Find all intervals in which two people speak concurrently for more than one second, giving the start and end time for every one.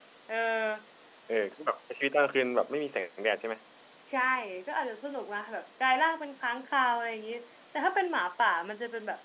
none

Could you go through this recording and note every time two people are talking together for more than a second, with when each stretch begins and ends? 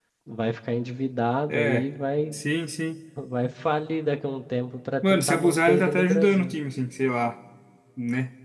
5.0-6.5

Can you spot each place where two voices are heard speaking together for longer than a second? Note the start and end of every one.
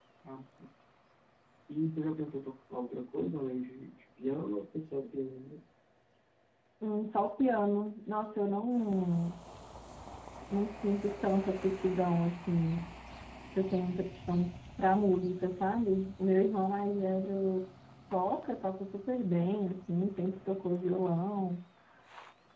none

